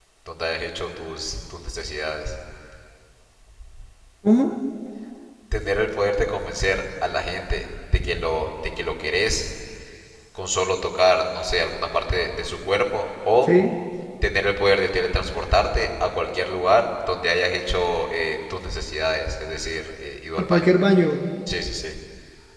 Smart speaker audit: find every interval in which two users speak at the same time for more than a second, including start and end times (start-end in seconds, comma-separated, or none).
none